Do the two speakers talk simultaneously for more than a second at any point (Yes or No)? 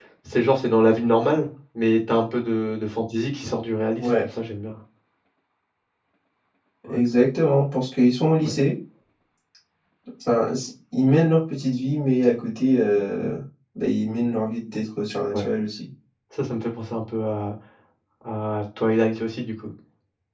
No